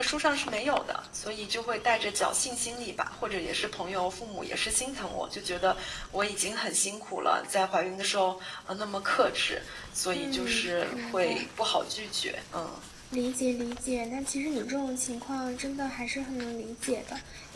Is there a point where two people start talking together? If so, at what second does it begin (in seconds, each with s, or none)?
10.1 s